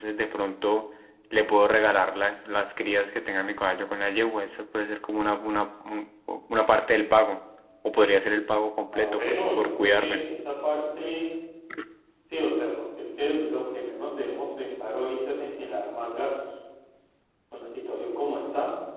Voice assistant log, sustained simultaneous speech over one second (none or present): present